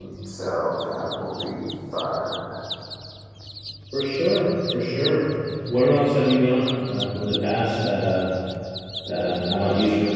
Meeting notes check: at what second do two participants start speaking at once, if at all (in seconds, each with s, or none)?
none